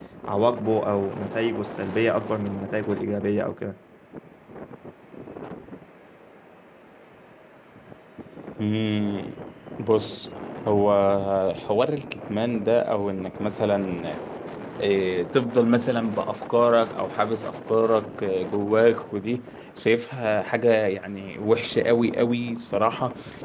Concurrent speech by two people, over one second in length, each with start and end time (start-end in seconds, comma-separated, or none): none